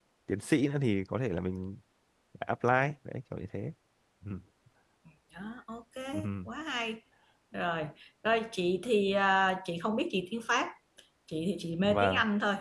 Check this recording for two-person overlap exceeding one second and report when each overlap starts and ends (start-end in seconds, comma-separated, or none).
none